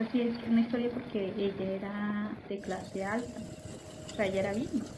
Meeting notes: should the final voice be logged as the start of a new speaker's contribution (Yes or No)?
No